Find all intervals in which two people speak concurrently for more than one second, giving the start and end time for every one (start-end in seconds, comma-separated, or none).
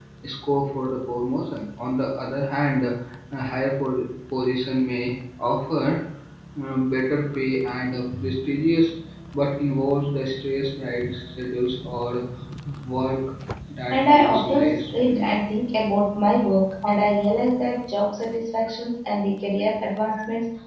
13.9-15.3